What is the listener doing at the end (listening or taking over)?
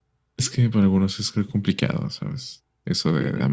taking over